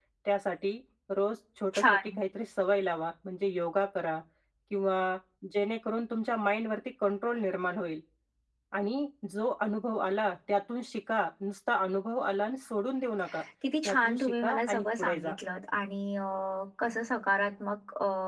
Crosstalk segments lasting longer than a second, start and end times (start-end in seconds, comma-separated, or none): 13.8-15.3